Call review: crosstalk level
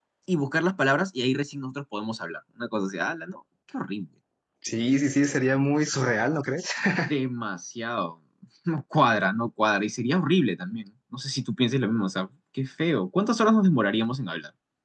none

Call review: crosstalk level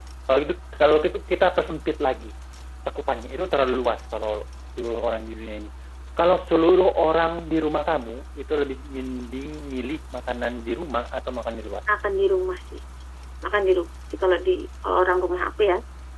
none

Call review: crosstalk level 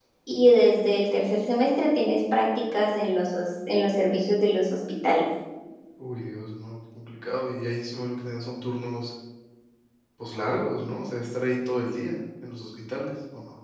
none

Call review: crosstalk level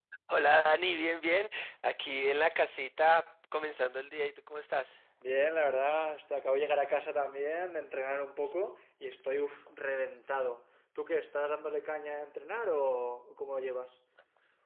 none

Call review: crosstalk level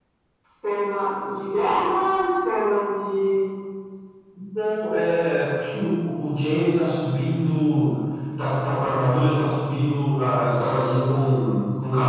none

